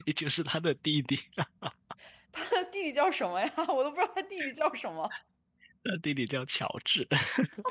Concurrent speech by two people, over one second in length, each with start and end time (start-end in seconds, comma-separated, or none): none